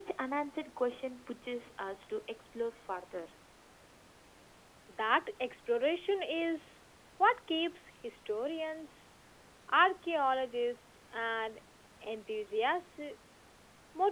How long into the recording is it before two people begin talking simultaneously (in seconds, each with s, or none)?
none